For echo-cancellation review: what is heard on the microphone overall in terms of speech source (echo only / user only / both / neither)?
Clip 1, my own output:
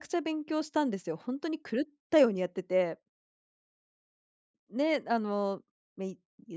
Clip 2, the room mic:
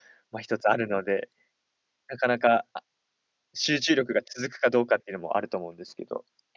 user only